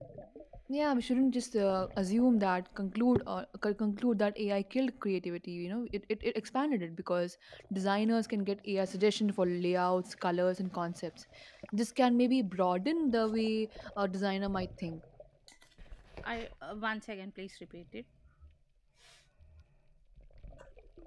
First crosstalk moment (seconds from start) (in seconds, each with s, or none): none